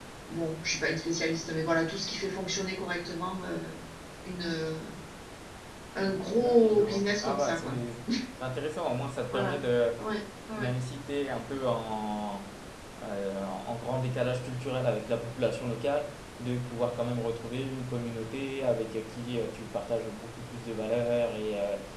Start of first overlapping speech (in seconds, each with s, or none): 6.4 s